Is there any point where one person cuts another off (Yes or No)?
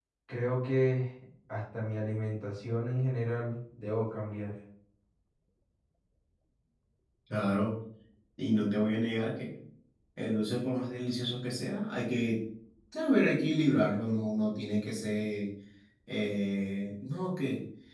No